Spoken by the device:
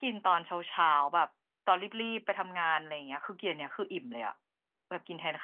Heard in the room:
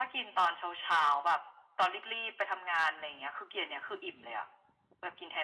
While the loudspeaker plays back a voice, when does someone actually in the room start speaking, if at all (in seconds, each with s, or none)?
none